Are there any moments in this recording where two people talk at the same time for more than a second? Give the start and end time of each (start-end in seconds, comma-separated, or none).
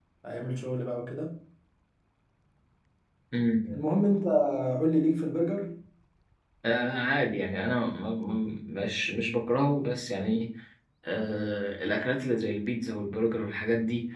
none